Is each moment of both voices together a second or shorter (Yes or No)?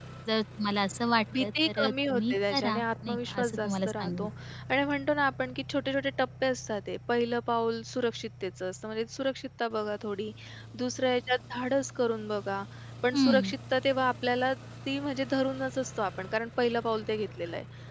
No